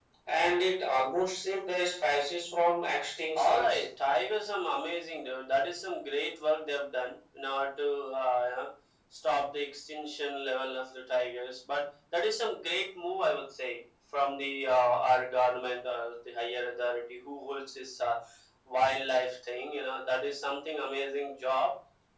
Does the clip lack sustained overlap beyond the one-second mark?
Yes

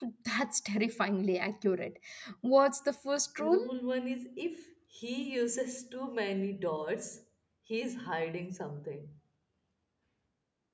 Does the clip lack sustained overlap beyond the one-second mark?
Yes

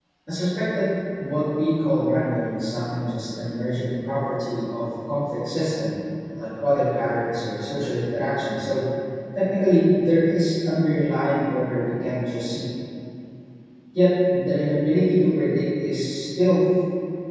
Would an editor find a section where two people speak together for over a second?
No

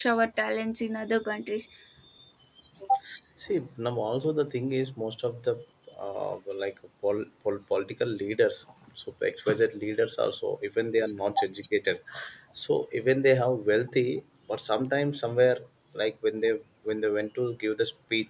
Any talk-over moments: No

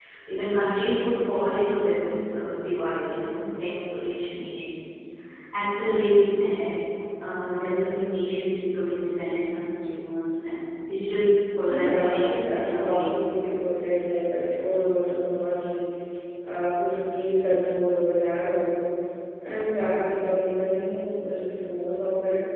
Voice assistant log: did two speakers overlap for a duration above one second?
Yes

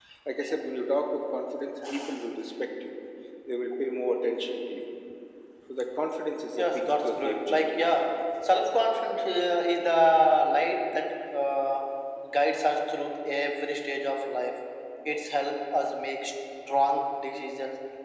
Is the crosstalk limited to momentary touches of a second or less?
No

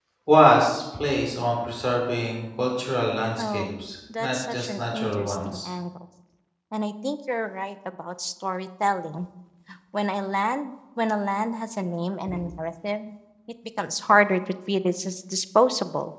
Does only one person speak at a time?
No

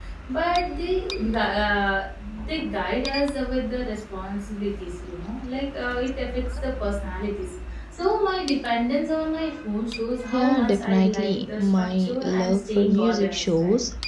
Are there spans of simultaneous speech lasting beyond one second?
Yes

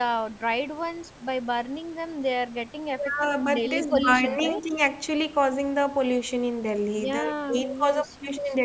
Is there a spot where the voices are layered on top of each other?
Yes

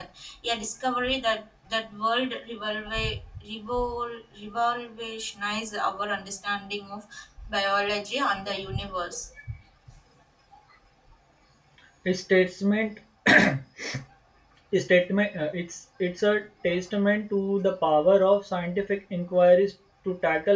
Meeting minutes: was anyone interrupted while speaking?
No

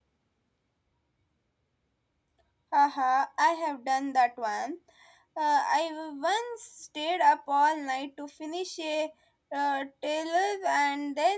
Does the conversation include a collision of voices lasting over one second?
No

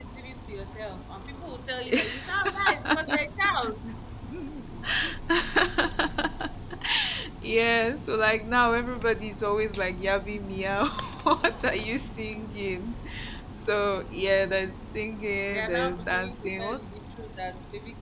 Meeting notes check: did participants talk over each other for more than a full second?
Yes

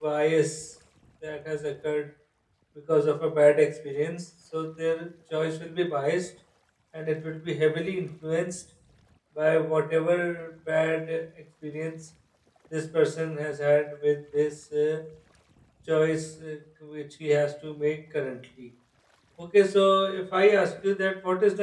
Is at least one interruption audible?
No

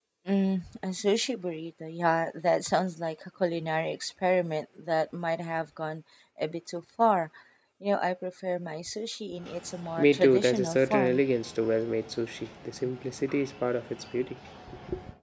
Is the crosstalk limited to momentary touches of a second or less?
No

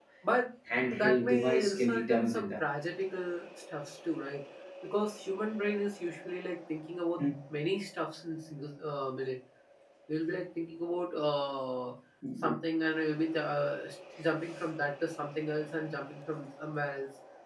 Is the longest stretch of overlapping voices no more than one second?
No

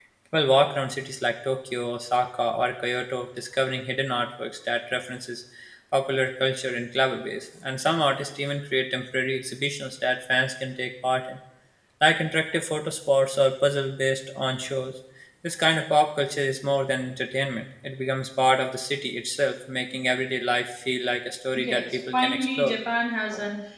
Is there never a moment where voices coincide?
No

